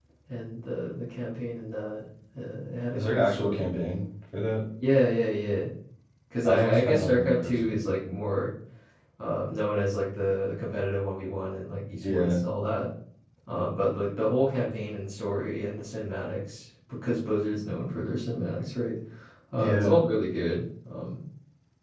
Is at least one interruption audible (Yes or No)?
Yes